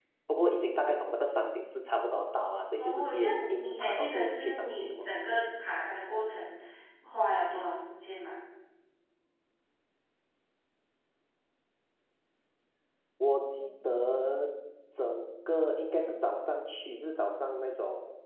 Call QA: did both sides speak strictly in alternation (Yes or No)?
No